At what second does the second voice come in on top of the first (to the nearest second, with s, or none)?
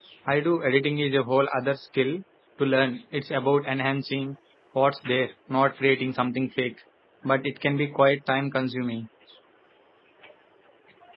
none